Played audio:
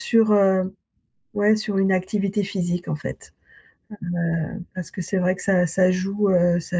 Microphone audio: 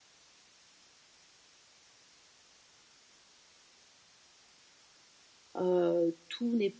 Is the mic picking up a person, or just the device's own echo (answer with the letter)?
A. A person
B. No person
A